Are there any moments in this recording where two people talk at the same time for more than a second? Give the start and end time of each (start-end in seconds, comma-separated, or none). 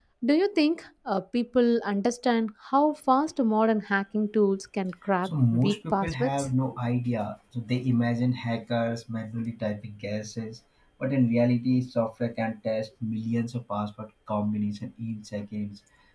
5.2-6.5